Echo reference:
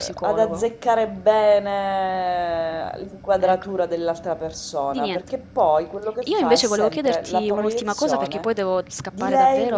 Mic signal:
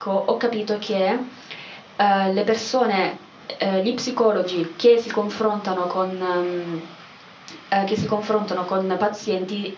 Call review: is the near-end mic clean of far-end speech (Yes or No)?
Yes